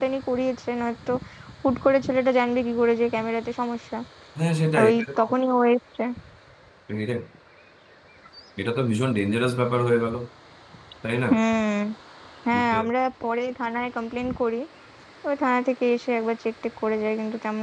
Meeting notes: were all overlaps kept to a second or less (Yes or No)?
Yes